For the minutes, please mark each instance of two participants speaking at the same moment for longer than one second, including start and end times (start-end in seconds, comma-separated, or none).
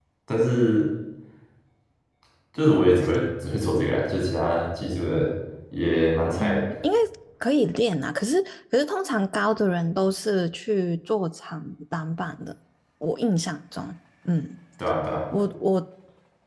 none